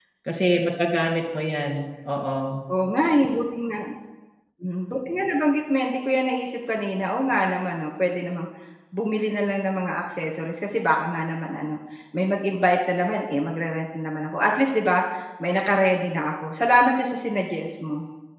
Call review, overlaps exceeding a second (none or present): none